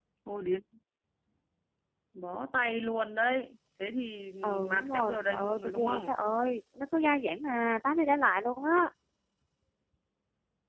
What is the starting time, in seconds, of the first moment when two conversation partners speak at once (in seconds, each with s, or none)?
4.7 s